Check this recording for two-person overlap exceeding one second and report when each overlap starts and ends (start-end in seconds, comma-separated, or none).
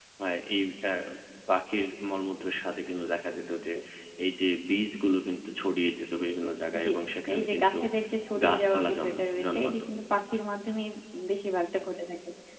8.4-9.7